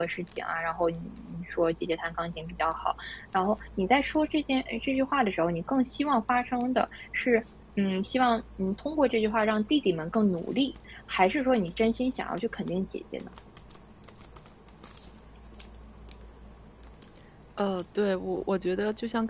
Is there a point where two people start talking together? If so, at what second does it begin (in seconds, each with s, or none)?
none